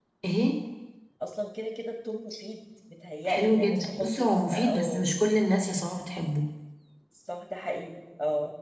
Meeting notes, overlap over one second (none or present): present